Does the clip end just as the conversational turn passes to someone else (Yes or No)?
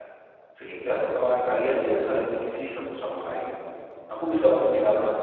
No